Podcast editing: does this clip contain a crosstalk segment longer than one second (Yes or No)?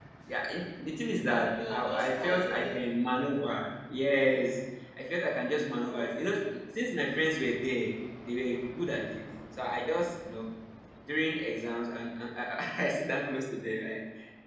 Yes